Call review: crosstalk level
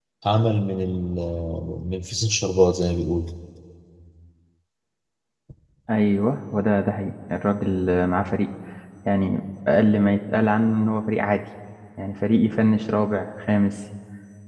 none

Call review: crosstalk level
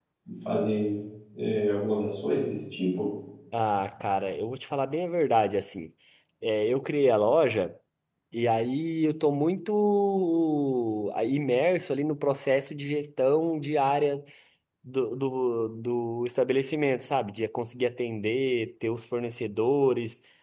none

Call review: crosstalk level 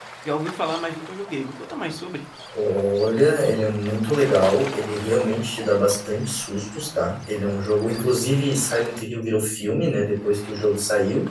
none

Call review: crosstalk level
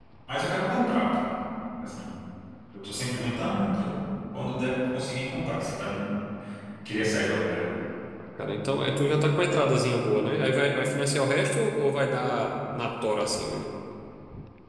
none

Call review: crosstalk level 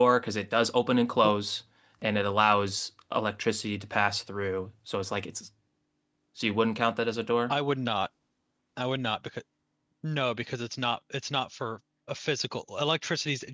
none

